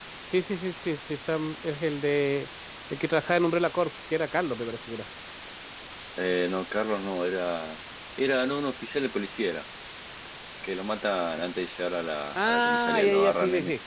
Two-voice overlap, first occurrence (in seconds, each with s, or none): 12.3 s